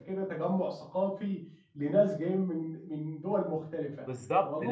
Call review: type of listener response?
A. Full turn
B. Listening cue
A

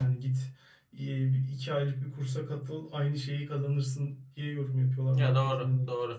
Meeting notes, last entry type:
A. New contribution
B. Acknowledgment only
A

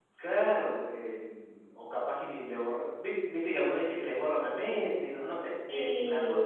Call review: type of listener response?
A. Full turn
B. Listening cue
B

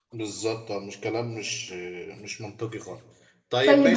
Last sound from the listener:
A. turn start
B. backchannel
A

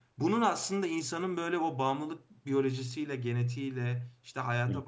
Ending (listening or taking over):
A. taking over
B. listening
B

